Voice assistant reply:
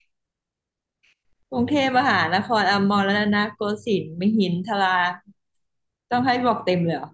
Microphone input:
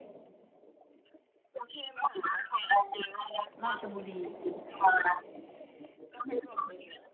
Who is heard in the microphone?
both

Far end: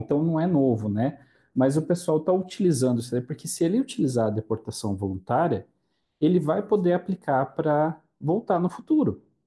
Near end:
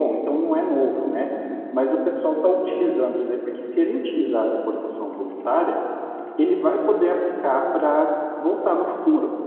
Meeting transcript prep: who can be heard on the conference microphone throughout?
echo only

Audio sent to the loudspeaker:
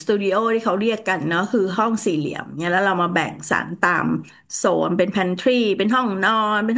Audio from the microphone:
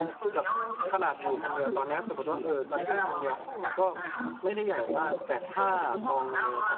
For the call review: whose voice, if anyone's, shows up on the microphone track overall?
both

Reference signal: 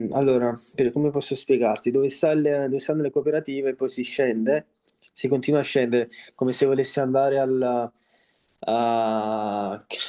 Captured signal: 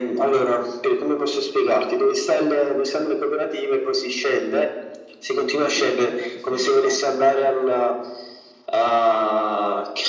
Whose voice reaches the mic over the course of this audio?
both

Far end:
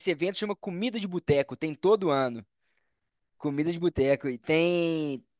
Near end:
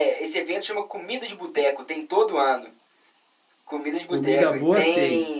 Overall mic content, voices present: both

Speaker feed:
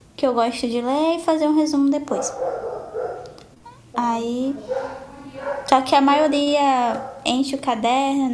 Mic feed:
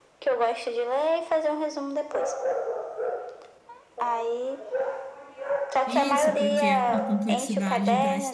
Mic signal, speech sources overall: both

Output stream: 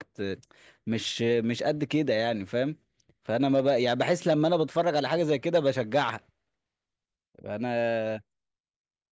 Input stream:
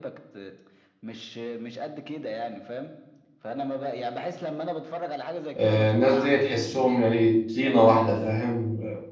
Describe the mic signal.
both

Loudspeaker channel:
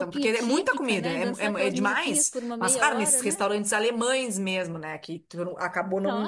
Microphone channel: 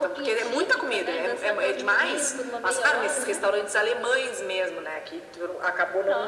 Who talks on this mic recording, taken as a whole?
both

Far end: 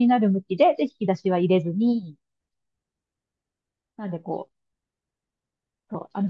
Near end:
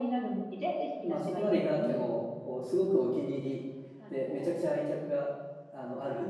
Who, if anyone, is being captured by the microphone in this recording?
both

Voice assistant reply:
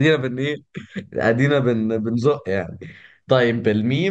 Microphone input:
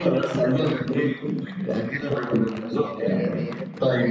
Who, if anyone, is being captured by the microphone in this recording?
both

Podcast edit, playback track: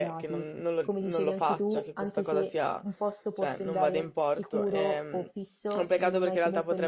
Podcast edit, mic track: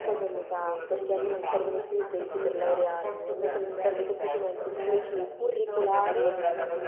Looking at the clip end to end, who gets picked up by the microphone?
both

